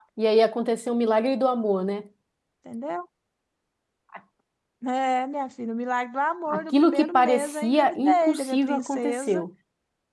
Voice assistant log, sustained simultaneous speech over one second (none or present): present